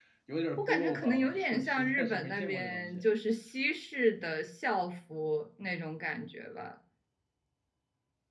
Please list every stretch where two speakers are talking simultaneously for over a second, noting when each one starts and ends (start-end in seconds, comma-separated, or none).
0.6-3.0